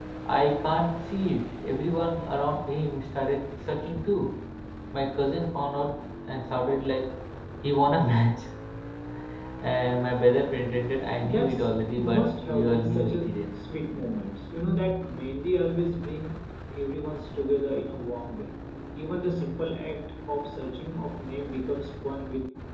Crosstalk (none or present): present